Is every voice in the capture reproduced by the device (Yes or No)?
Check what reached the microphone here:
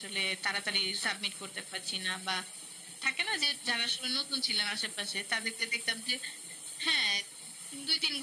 Yes